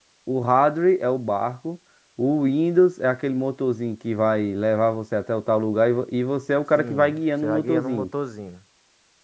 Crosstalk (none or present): present